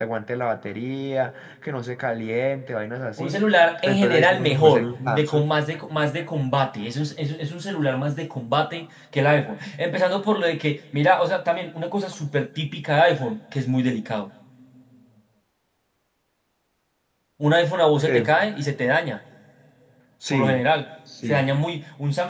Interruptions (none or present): present